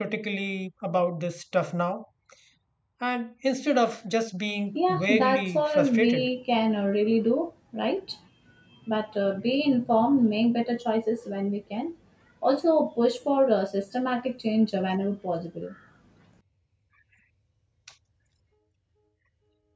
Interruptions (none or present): present